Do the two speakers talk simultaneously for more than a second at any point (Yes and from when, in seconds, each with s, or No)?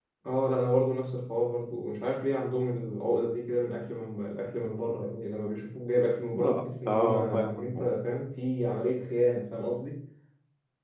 Yes, from 6.3 s